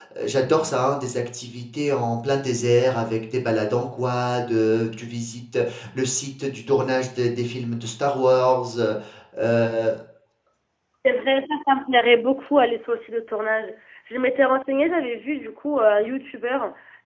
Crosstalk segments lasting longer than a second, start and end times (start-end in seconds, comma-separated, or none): none